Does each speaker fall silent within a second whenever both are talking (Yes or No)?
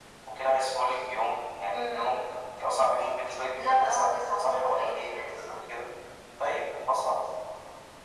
No